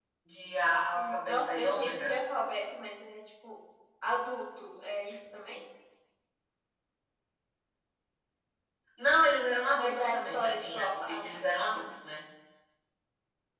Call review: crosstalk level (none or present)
present